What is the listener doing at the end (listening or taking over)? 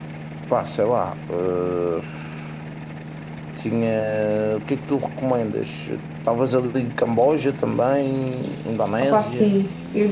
taking over